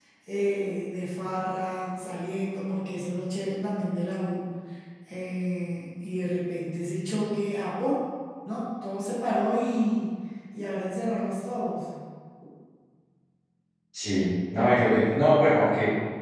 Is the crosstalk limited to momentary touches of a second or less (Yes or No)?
Yes